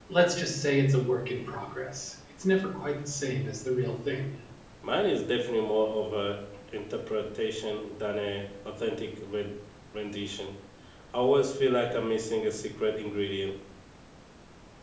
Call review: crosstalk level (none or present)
none